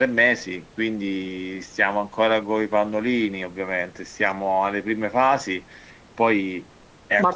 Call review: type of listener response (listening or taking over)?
taking over